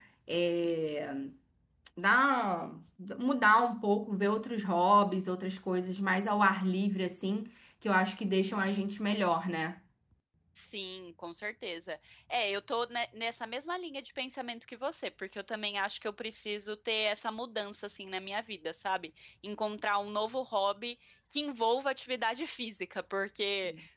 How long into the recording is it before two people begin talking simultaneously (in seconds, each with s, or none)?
none